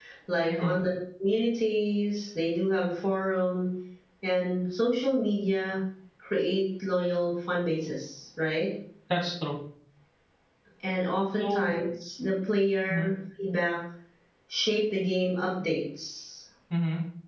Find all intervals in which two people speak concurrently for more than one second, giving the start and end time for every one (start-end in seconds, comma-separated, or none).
none